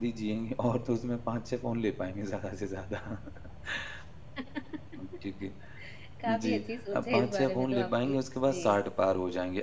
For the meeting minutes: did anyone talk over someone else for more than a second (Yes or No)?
Yes